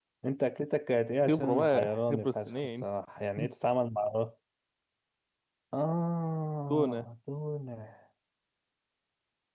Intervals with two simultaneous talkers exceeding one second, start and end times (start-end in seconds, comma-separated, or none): 1.3-2.9